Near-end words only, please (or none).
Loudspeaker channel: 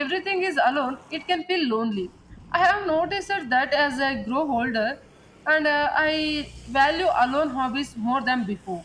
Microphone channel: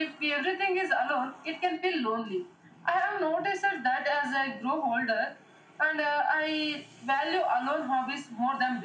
none